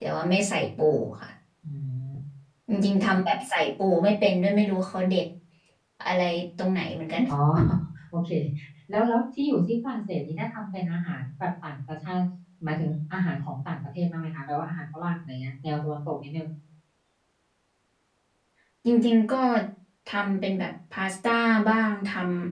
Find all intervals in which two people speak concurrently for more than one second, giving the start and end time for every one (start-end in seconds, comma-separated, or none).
none